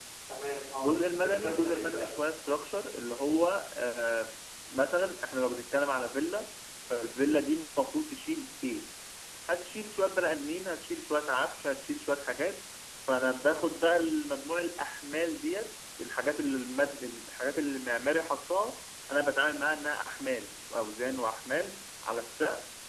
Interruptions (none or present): present